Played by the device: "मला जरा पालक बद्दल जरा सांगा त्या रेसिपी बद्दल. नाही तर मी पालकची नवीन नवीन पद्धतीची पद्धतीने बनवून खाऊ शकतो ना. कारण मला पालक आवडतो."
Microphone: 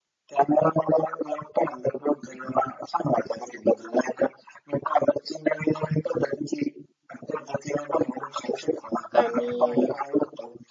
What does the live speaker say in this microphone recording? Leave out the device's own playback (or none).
आणि